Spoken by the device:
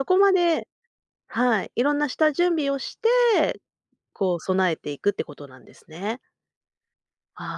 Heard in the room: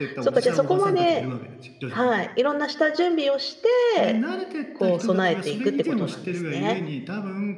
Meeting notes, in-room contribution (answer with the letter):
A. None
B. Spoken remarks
B